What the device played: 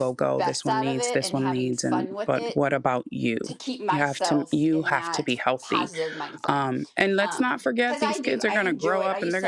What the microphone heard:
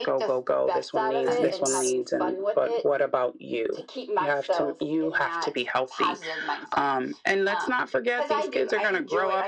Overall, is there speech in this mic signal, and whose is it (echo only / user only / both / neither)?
both